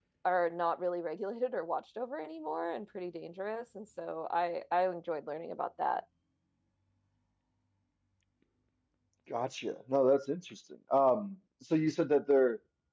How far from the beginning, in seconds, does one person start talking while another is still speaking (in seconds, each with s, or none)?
none